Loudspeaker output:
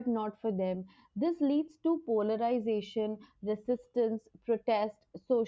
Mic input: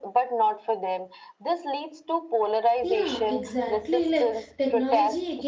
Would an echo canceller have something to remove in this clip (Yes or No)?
Yes